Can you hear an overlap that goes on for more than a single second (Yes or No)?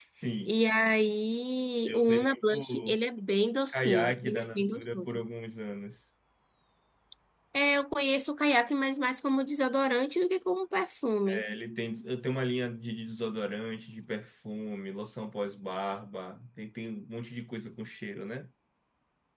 Yes